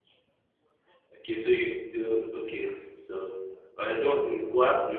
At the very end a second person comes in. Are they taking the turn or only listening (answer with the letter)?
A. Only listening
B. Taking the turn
A